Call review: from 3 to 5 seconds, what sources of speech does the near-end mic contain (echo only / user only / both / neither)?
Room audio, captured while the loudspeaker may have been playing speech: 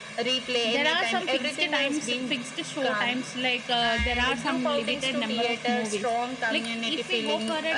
both